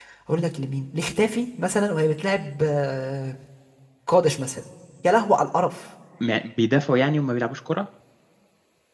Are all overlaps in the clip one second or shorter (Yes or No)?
Yes